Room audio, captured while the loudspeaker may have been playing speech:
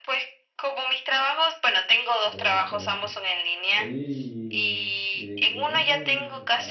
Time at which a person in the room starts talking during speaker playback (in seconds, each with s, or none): 2.2 s